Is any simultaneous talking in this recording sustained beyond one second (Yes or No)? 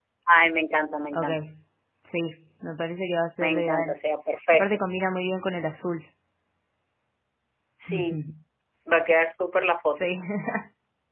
No